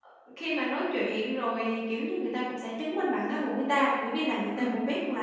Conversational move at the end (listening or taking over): listening